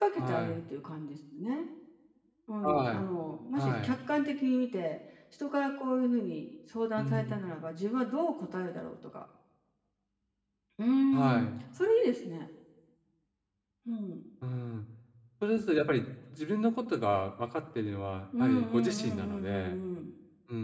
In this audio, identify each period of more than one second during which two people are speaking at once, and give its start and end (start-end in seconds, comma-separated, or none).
18.4-19.8